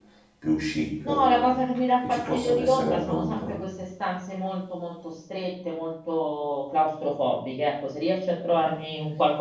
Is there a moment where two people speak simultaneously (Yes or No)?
Yes